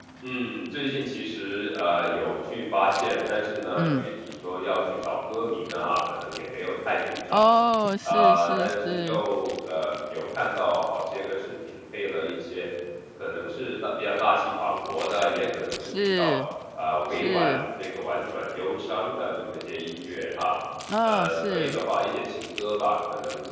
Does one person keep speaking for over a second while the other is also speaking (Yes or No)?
Yes